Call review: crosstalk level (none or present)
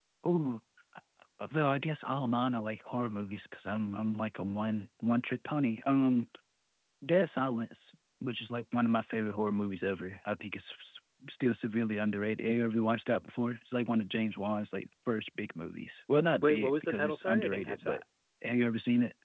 present